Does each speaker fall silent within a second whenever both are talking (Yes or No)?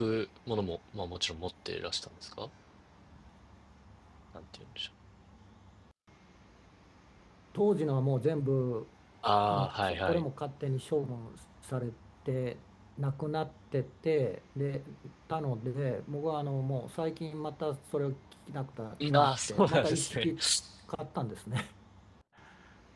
No